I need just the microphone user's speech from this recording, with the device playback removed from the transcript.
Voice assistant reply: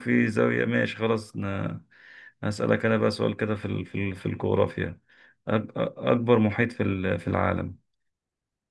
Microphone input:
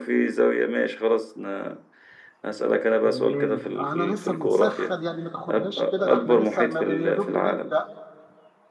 تمام انا لسه بنسخن يعني ما تاخدهاش كده ده احنا لسه ما ب- يا دوب بنبدا

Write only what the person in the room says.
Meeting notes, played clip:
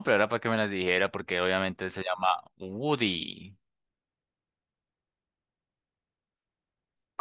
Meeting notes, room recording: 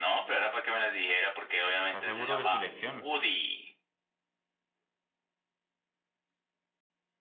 ¿Está seguro de su elección?

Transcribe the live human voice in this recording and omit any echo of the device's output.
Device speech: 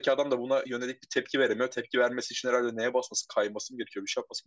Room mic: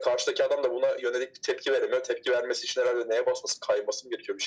none

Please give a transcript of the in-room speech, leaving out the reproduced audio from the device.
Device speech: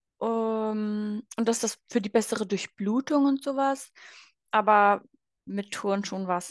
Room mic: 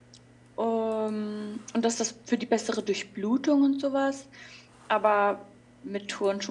none

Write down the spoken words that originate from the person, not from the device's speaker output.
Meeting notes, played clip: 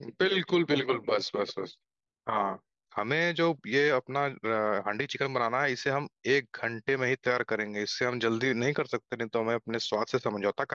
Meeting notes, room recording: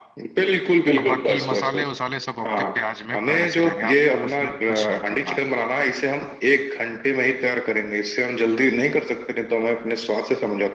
अब बाकी मसाले वसाले सब आपके प्याज में पहले से रहेंगे आपको उसमें कुछ नहीं करना है

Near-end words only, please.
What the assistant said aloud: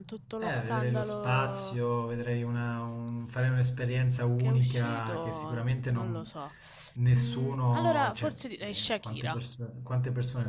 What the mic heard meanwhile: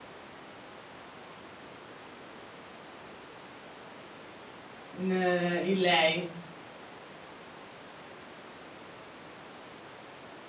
in, in lei.

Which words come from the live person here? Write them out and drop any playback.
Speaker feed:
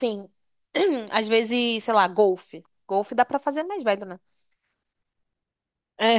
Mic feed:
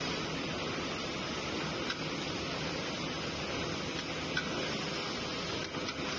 none

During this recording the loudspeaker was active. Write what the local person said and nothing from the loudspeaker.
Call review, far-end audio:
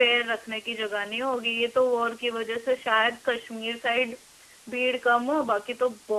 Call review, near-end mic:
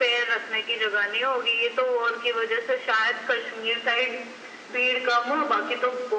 none

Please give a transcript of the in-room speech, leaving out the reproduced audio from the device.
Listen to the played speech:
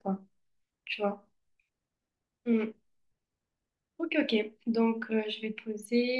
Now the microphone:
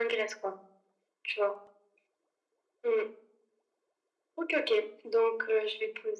none

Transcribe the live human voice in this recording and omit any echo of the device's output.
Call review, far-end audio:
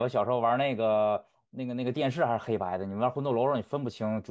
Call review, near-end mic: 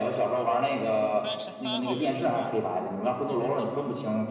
三十三号远征队，

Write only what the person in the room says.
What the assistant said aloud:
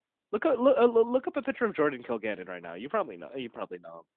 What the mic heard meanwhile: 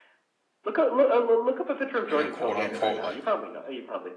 you know, quote unquote, like

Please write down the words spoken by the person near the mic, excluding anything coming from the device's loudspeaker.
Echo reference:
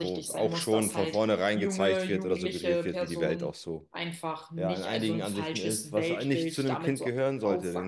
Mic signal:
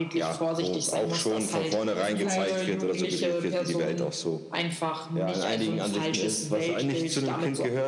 es ist halt,

